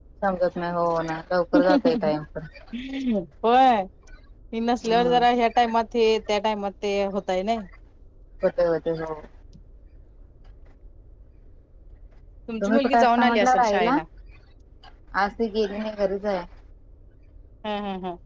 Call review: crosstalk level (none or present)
present